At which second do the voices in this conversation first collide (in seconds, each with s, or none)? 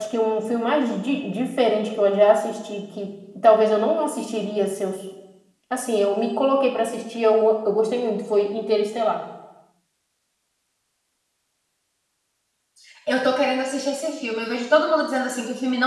none